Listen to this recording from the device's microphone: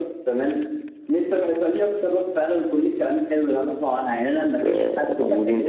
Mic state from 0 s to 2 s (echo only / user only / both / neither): echo only